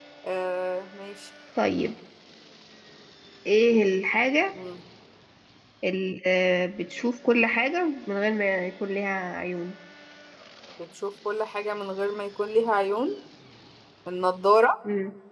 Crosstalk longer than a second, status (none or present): none